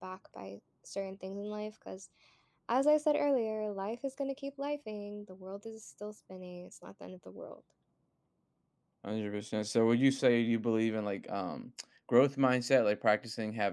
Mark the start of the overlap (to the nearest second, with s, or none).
none